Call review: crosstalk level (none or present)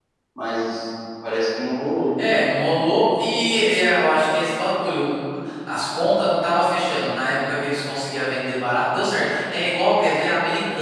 none